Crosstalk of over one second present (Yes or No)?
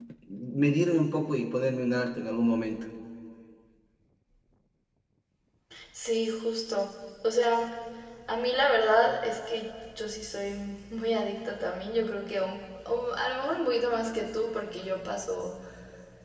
No